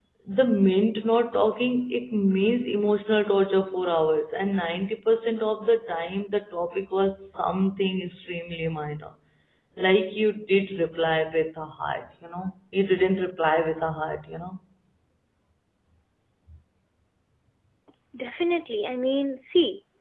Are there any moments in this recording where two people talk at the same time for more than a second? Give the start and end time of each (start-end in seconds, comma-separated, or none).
none